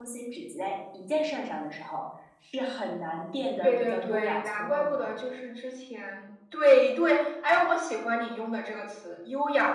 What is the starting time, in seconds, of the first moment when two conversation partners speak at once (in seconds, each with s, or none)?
3.6 s